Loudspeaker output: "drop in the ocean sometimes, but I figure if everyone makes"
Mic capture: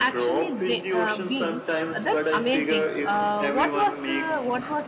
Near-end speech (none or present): present